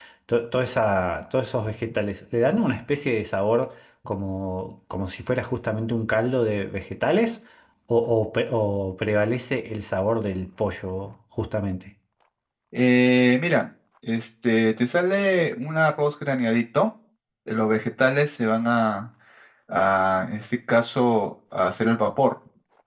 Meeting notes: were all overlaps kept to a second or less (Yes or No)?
Yes